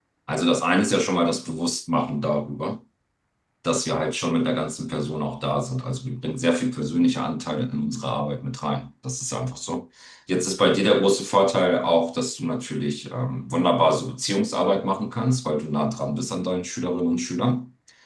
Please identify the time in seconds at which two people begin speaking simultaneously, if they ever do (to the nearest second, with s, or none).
none